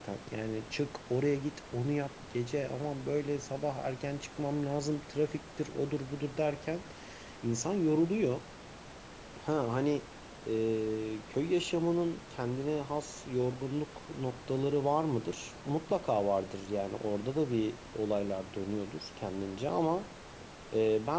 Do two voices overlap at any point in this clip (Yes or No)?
No